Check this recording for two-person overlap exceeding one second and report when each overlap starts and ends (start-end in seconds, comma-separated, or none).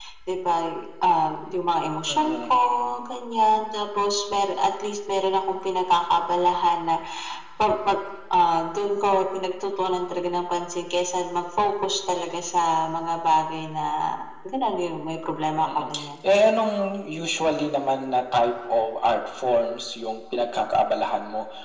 none